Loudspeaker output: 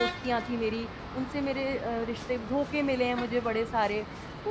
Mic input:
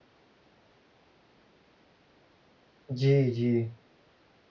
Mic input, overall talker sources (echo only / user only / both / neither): user only